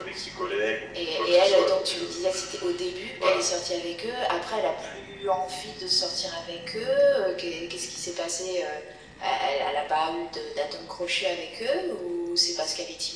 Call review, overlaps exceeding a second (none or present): present